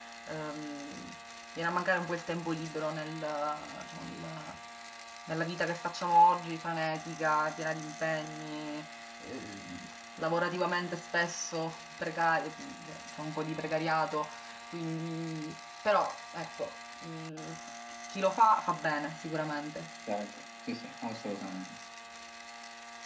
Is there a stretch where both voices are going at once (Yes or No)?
No